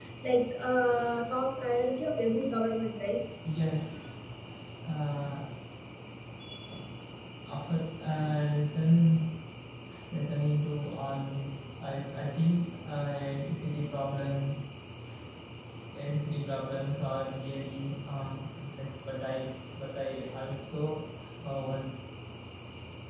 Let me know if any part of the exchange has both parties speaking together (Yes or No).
No